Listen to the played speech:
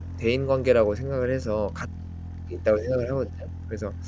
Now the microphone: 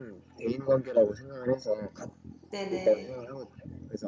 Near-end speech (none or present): present